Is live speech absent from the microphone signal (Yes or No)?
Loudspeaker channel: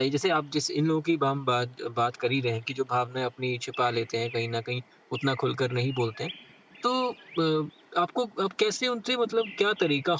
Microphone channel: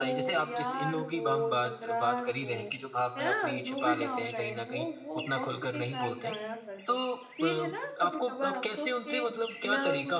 No